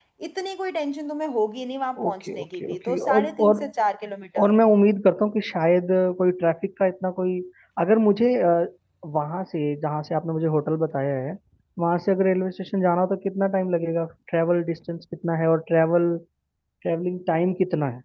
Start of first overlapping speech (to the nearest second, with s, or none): 2 s